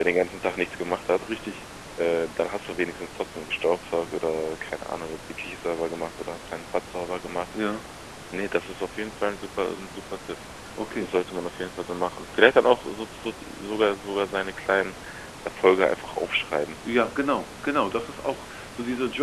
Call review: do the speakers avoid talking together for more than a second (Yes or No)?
Yes